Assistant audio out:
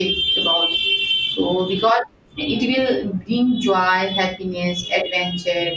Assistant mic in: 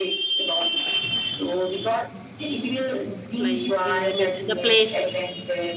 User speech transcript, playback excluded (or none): Like, uh, I mean, the place.